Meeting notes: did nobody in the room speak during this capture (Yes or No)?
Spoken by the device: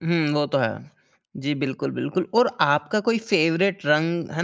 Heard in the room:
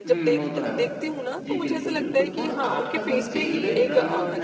No